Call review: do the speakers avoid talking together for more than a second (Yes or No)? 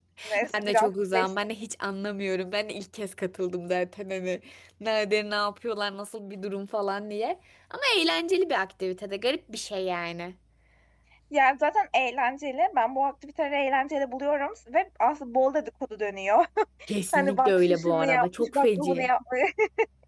No